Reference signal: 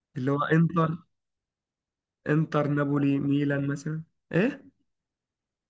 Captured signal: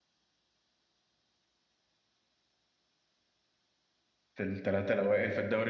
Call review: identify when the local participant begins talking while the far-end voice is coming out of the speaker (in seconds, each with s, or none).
4.3 s